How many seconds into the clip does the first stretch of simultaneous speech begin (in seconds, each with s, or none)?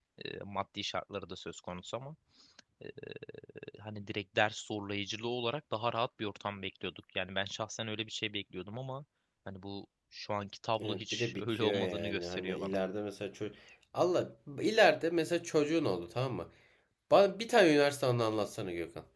10.8 s